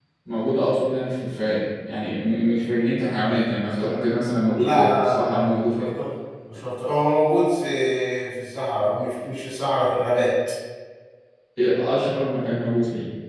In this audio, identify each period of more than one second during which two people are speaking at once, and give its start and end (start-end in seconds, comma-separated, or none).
4.6-5.9